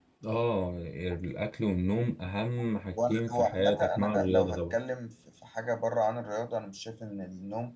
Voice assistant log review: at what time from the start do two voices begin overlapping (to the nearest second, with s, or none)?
3 s